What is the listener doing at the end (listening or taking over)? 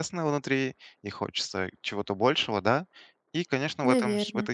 listening